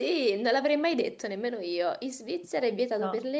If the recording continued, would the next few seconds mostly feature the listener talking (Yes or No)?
No